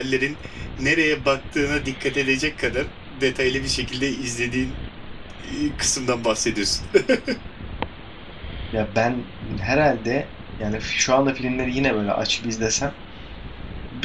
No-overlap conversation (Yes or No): Yes